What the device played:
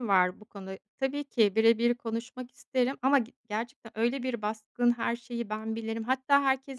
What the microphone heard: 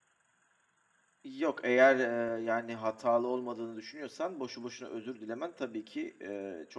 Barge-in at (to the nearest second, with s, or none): 1 s